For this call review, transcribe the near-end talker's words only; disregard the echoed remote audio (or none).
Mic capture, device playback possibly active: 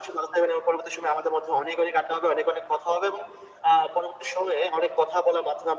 none